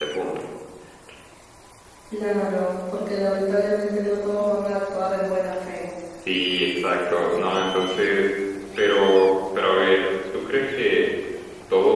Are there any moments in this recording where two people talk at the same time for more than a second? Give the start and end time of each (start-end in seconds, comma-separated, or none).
none